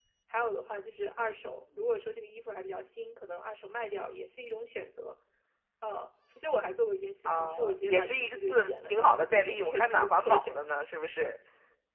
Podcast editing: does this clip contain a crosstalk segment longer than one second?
Yes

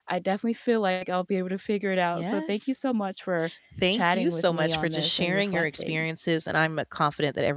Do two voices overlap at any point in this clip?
Yes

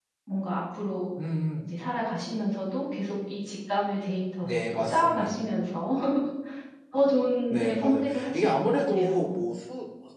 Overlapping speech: Yes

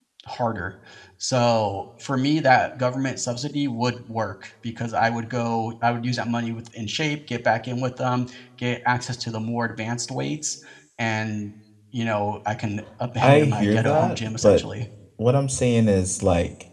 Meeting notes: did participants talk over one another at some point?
Yes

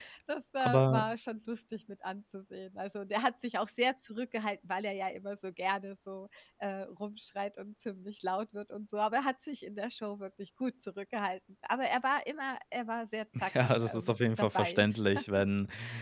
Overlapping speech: Yes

